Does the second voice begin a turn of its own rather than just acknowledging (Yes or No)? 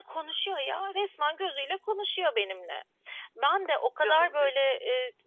No